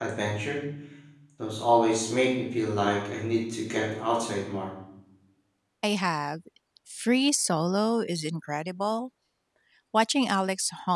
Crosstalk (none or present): none